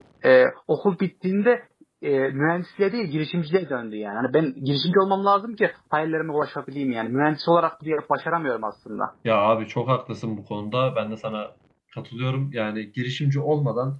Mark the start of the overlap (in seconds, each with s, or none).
none